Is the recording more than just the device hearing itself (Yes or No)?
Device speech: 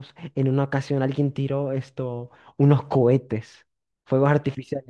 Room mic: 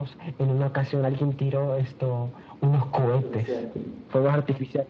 Yes